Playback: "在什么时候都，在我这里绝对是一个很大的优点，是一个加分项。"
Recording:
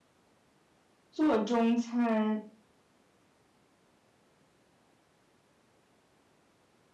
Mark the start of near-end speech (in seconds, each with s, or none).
1.1 s